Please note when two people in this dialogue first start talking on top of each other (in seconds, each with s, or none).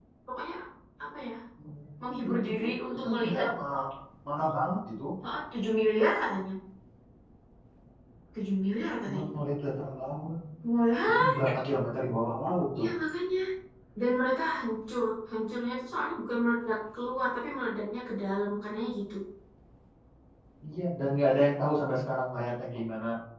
2.2 s